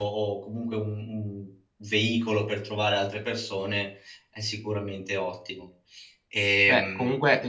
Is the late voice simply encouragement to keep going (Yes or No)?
No